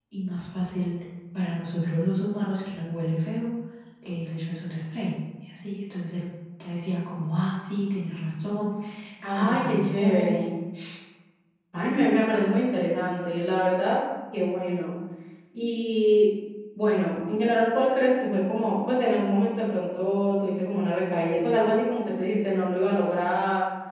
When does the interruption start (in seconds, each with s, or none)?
9.2 s